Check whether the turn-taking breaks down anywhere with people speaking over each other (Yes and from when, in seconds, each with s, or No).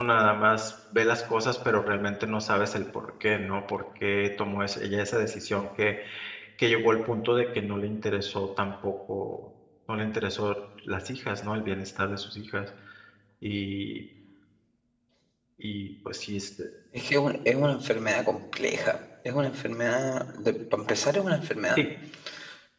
No